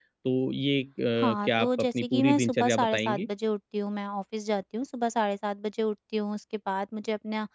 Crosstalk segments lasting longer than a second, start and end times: 1.4-3.3

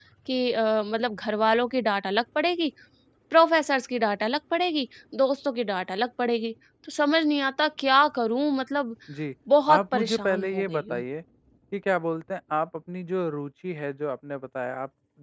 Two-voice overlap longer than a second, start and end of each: 9.7-11.0

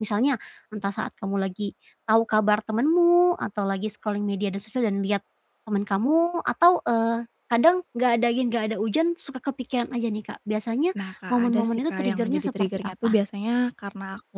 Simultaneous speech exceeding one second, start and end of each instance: 11.3-13.2

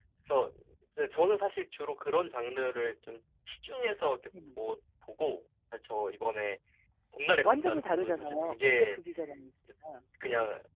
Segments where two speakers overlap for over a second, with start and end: 7.4-9.0

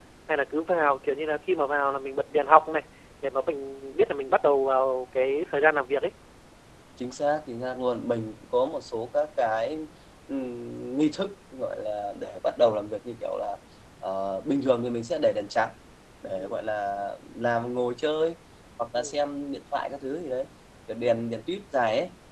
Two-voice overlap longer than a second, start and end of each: none

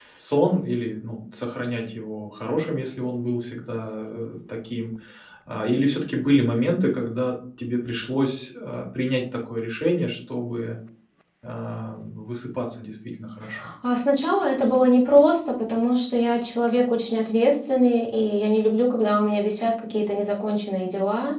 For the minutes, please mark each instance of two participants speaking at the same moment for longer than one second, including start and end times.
none

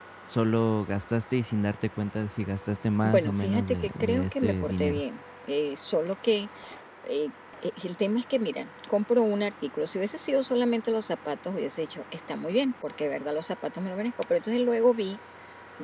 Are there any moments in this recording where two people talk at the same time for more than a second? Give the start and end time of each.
3.0-5.0

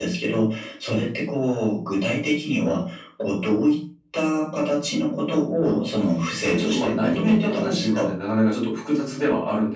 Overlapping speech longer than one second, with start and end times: 6.5-8.1

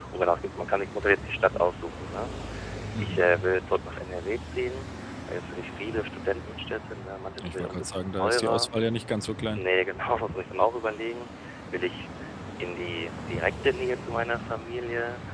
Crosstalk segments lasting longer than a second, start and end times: 7.4-8.7

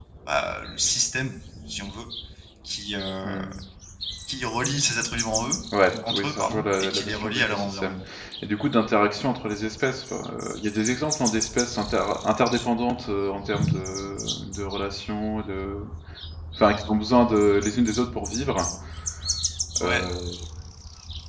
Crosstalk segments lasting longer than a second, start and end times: 6.0-8.0

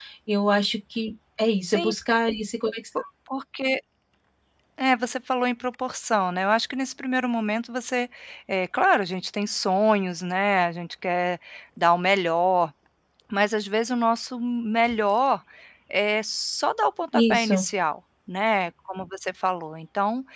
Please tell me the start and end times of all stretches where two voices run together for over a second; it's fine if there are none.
none

